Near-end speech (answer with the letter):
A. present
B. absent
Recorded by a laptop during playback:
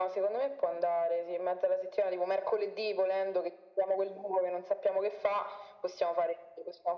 B